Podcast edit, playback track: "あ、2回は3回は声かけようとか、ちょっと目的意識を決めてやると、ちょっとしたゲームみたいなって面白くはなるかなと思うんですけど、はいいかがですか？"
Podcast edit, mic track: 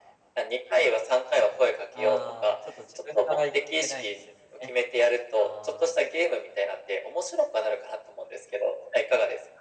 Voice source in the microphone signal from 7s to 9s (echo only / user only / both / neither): echo only